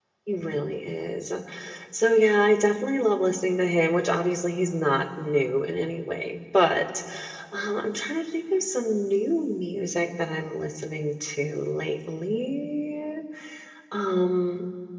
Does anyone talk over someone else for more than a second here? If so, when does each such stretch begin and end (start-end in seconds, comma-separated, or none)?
none